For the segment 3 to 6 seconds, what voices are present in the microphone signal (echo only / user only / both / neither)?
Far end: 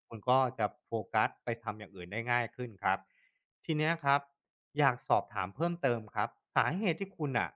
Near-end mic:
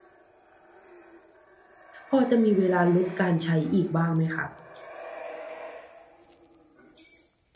user only